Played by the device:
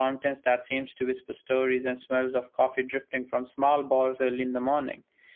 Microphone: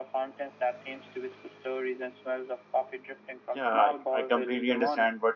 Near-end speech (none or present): present